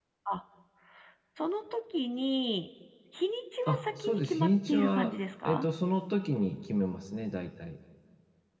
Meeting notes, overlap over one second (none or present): present